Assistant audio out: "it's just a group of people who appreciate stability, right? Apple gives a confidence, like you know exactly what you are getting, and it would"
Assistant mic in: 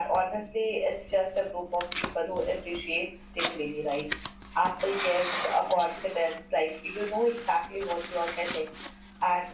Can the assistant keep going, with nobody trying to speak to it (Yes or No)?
Yes